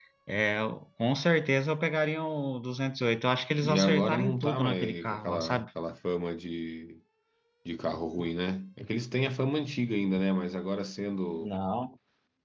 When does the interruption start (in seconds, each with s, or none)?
3.6 s